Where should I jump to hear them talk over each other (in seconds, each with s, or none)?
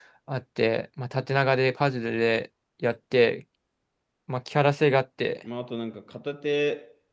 none